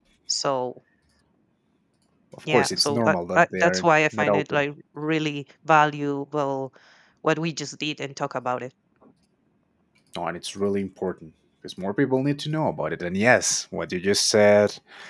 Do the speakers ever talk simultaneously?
Yes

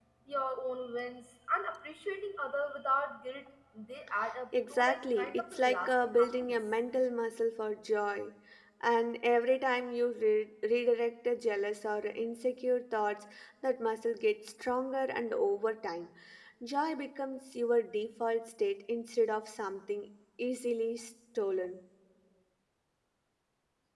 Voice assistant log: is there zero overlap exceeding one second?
No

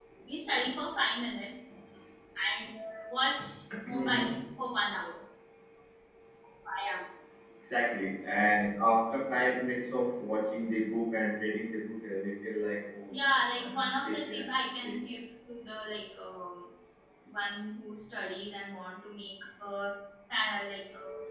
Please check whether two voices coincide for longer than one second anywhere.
Yes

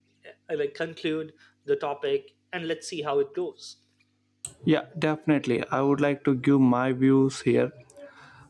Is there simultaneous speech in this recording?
No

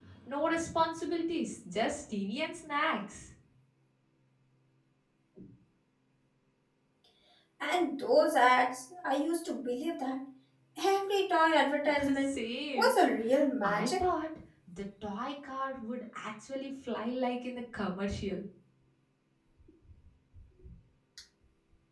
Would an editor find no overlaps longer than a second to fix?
Yes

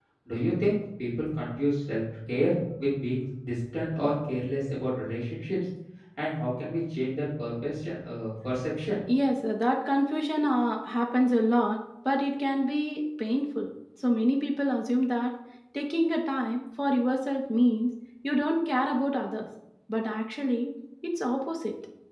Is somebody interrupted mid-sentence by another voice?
No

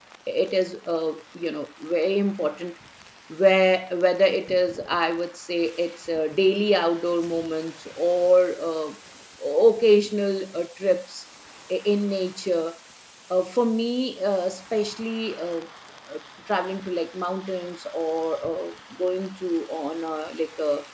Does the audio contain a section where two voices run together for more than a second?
No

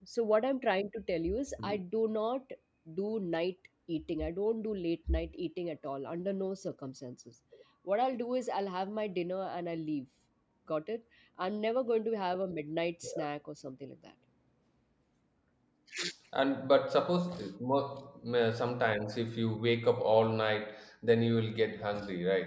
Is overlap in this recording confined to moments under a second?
Yes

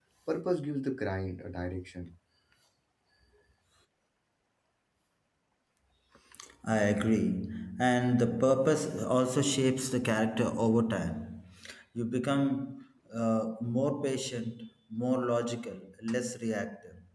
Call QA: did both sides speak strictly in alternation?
Yes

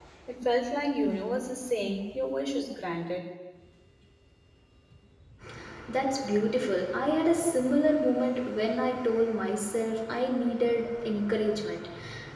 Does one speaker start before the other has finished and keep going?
No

